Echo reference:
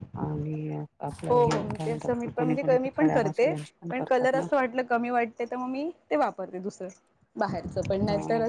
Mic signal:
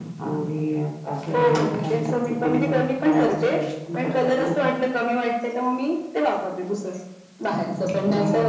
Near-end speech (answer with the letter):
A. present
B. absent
B